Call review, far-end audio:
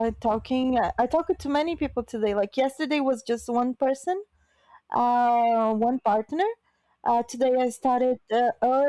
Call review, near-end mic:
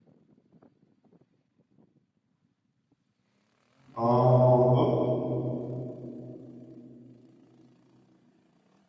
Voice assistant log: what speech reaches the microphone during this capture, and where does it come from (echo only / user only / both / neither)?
user only